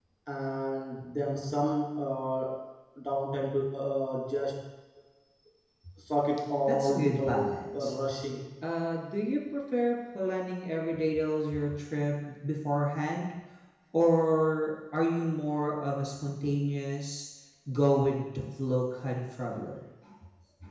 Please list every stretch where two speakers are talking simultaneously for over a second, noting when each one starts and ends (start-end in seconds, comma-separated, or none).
6.7-7.9